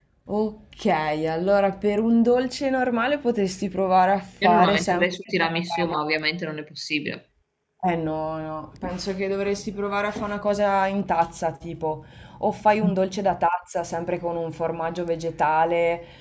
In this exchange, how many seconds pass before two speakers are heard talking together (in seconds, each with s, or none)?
4.4 s